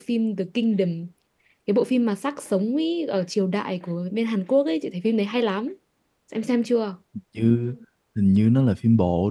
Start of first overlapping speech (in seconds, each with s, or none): none